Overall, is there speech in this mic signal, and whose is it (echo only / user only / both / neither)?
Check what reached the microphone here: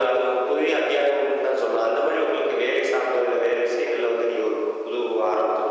echo only